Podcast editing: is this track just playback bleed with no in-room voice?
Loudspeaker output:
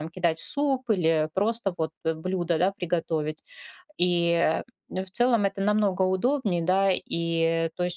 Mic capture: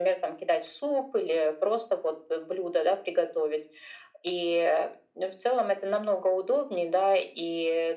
Yes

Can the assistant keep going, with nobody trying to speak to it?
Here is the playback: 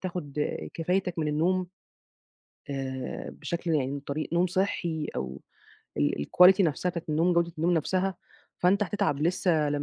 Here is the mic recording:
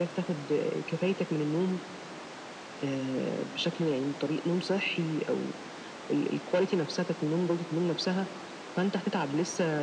Yes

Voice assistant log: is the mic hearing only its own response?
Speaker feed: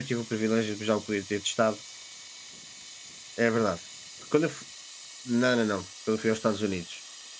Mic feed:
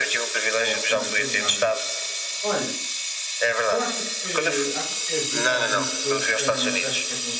No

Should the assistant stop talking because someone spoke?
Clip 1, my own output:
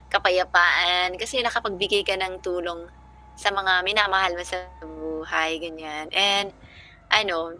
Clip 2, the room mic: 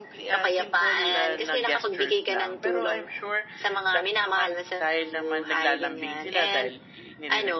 Yes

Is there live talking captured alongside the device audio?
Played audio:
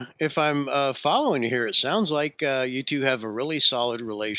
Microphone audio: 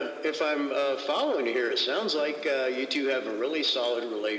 No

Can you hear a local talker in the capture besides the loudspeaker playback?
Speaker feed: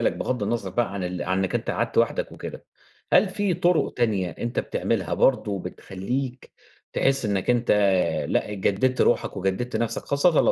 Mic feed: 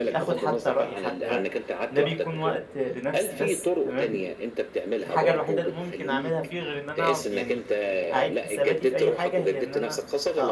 Yes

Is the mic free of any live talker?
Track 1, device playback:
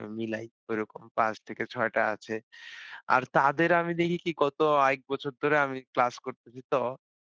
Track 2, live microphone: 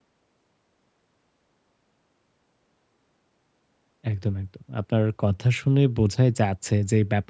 No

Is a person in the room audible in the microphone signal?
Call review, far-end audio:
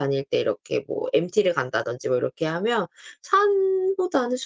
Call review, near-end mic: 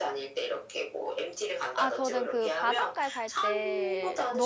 Yes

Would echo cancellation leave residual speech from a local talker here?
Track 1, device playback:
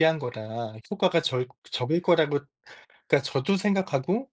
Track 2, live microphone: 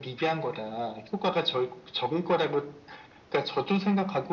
No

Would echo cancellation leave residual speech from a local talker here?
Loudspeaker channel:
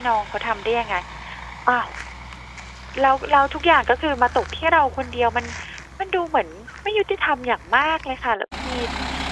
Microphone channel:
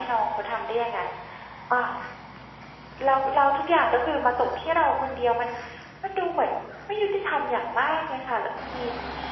No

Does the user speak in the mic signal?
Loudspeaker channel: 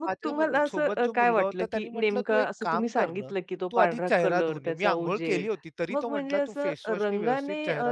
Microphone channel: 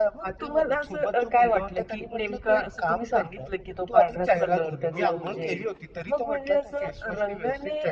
Yes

